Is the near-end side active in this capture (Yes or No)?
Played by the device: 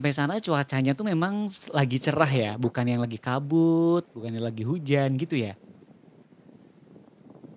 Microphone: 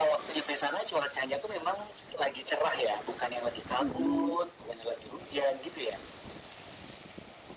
Yes